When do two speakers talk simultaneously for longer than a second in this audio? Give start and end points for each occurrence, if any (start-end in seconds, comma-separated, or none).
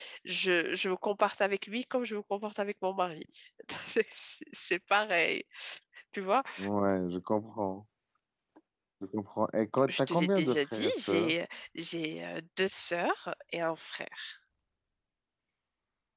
9.9-11.3